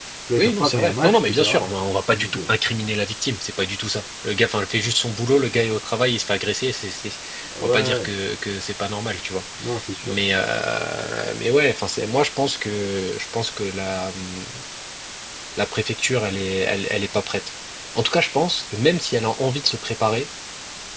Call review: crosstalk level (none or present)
present